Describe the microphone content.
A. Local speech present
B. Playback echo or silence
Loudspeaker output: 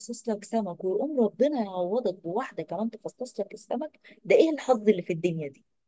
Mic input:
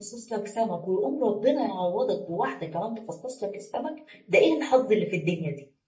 B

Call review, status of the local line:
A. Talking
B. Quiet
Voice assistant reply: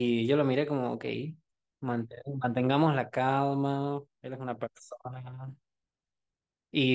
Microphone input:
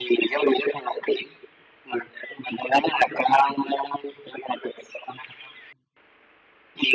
B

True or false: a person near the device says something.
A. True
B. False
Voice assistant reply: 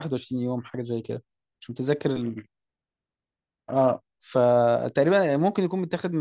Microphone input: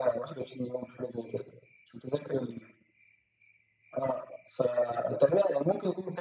B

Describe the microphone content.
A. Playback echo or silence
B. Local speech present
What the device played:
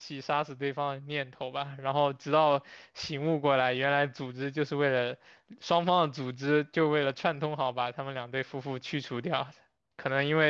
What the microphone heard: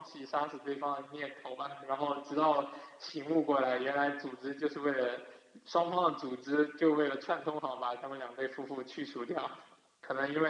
A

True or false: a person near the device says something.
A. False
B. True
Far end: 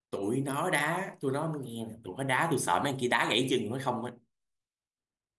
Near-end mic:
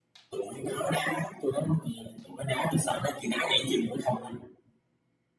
A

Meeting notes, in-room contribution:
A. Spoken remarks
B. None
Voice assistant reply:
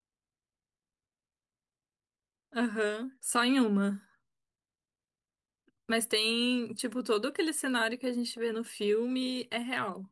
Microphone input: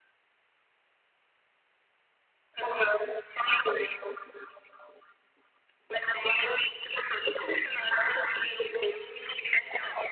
B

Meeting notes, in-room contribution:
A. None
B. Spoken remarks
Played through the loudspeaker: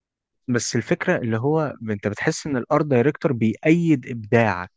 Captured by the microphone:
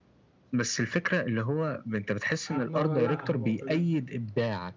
B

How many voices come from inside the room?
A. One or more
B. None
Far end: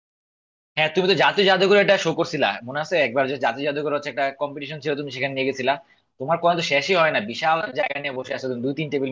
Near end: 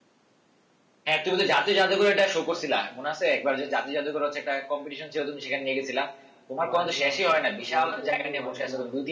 A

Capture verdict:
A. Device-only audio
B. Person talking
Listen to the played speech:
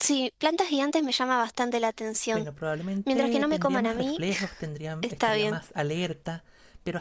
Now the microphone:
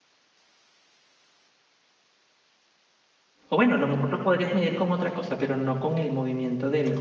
B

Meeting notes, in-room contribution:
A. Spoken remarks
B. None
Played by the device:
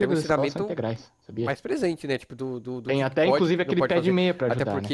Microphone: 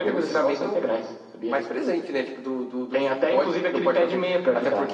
B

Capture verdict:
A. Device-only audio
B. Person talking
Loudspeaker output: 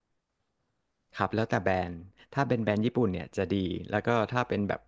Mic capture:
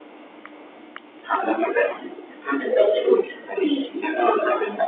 A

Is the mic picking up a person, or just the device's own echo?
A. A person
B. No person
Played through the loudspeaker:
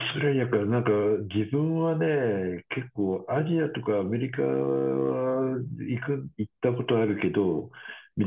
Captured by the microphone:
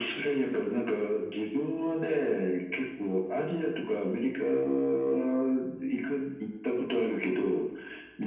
B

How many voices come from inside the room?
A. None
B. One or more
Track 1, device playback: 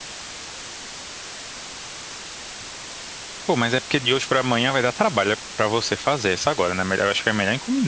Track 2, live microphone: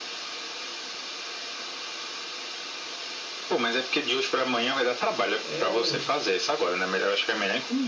B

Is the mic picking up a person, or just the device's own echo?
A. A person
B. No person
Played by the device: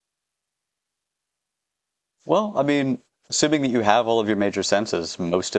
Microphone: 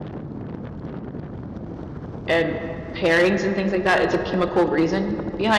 A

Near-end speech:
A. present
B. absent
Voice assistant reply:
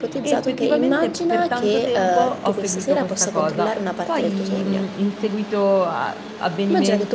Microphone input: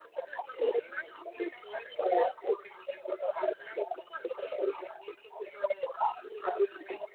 B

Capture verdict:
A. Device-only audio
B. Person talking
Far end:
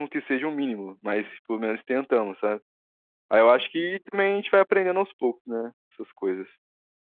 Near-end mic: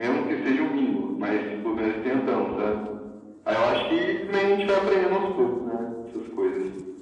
A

